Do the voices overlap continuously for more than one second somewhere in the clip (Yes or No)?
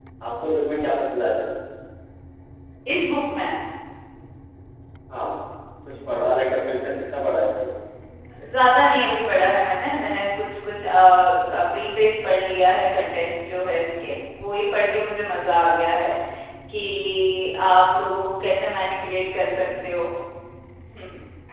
No